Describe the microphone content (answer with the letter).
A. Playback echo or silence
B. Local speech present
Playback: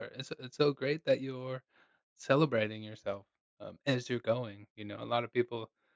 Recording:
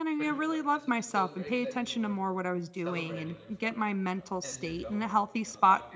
B